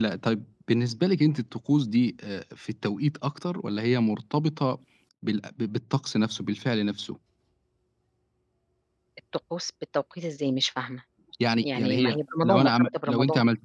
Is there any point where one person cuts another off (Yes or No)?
Yes